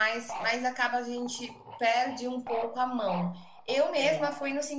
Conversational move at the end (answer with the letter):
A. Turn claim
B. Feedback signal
B